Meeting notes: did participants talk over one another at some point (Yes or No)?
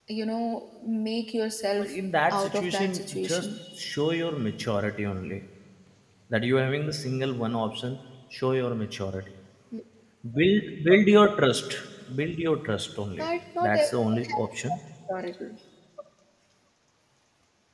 Yes